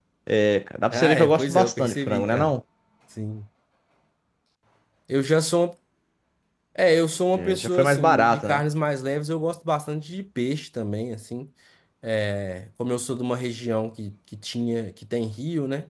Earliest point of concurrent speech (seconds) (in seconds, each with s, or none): 0.9 s